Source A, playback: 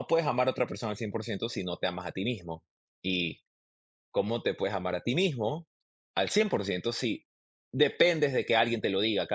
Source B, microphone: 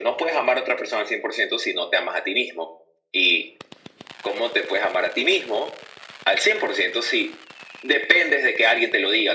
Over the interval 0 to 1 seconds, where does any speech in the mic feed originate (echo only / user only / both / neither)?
echo only